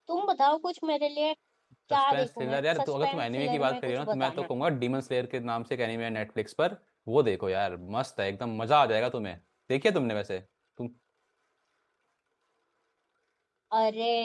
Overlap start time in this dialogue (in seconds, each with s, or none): 1.9 s